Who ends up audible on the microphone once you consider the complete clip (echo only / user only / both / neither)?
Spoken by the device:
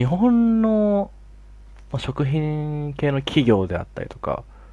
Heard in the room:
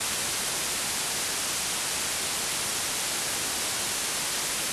neither